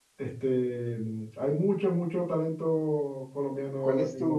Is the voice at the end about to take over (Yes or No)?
Yes